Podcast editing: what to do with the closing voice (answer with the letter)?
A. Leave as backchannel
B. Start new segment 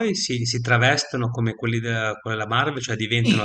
B